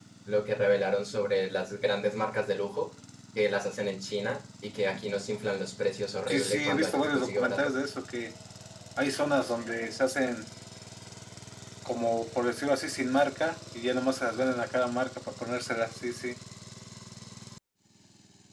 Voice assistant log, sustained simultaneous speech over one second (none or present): present